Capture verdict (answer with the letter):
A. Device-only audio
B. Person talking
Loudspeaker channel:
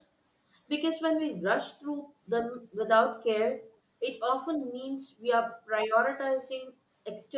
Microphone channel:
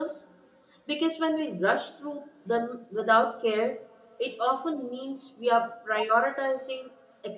A